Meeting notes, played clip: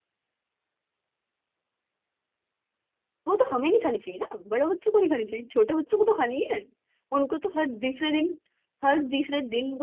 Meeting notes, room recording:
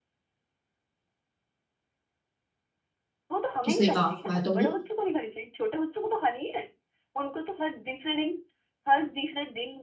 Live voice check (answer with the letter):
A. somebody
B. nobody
A